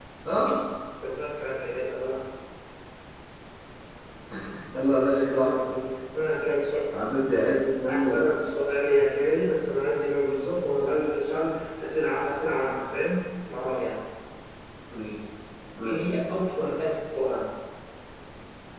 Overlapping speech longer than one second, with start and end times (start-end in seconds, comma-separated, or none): none